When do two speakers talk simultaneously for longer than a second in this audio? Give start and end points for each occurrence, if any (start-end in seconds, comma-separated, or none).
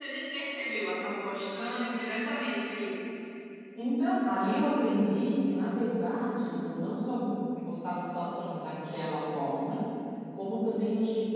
none